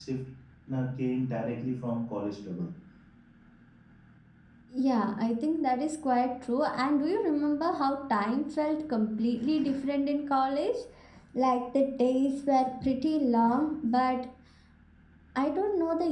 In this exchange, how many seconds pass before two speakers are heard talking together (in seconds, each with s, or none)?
none